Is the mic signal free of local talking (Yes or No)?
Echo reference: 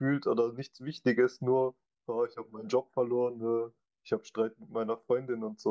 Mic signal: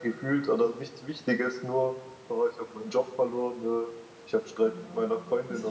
No